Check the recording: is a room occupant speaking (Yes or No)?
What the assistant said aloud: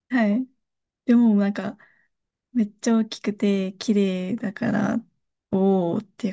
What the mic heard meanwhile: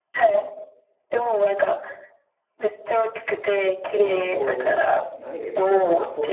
Yes